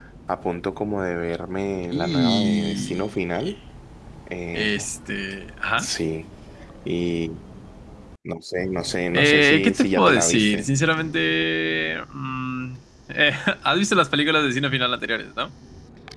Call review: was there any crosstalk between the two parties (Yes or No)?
Yes